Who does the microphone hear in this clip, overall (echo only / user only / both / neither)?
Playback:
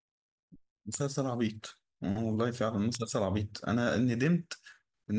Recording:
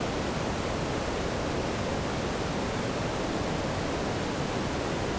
neither